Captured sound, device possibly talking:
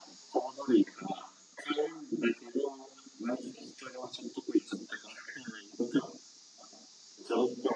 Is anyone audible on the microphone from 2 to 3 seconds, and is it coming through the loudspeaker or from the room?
echo only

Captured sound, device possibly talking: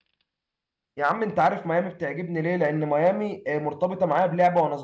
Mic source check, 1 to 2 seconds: user only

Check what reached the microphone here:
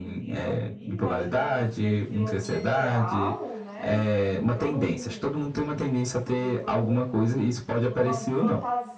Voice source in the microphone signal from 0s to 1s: both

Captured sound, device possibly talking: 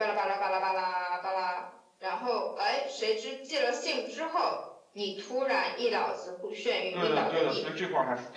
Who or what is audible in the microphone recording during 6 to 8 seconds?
both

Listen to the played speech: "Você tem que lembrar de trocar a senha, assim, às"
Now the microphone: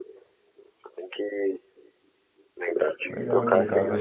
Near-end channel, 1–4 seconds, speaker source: both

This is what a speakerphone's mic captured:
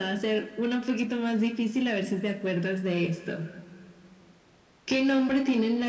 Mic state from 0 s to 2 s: echo only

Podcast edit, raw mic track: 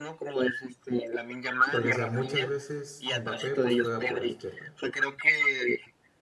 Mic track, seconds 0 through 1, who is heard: echo only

